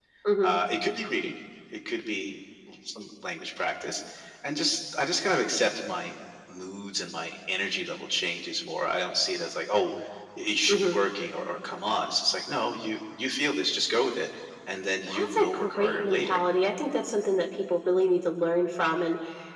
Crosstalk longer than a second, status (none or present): present